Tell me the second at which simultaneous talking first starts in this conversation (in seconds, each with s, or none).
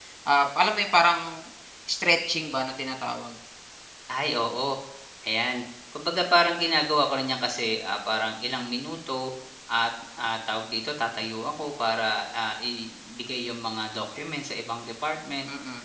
none